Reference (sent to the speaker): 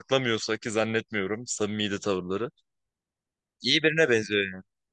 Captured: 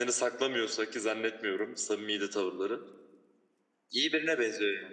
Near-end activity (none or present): none